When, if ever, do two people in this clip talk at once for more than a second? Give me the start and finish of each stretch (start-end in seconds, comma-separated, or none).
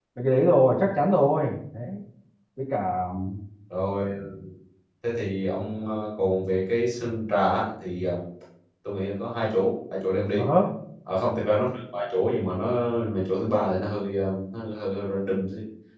none